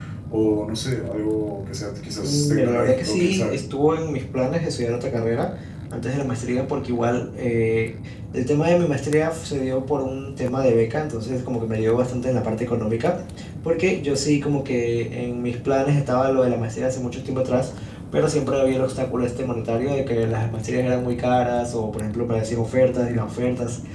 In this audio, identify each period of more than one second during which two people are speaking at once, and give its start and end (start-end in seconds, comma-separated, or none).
2.2-3.6